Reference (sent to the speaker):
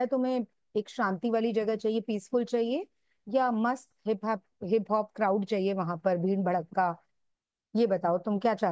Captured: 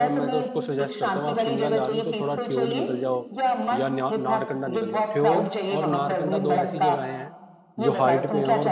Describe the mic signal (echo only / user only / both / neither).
both